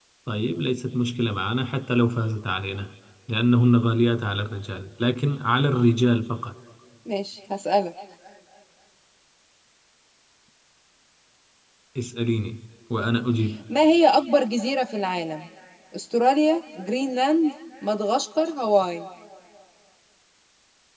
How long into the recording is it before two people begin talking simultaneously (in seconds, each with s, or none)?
none